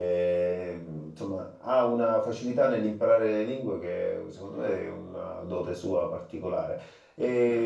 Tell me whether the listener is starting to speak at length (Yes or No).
No